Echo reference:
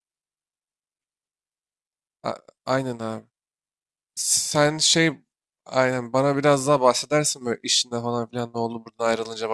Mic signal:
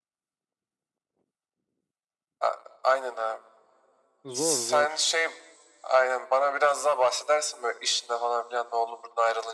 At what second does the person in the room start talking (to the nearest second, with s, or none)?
4 s